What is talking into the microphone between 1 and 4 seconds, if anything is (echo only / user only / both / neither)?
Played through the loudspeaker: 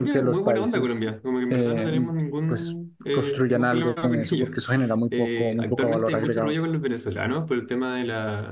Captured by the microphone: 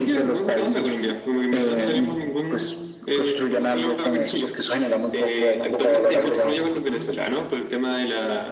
echo only